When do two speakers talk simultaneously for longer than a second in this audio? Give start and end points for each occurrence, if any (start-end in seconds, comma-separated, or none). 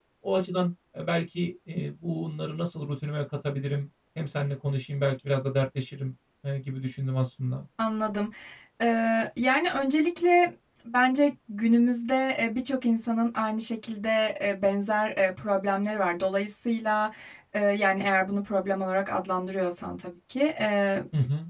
none